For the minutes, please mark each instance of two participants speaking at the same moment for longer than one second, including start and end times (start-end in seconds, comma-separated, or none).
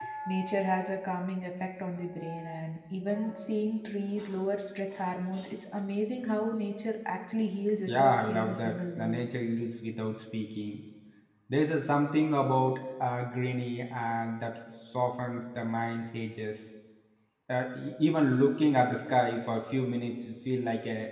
7.9-9.2